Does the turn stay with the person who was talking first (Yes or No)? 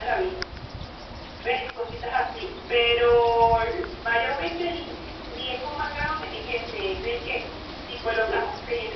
Yes